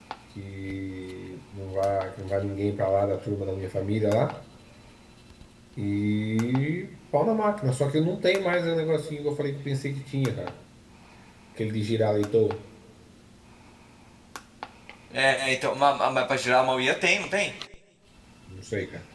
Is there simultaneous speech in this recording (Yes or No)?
No